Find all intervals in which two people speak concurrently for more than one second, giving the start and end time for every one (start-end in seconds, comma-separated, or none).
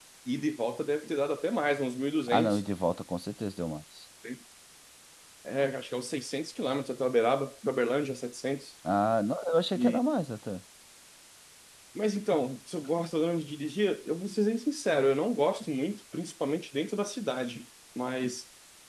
none